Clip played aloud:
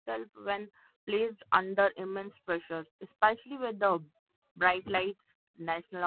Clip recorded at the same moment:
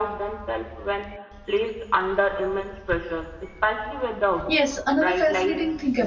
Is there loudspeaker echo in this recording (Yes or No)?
Yes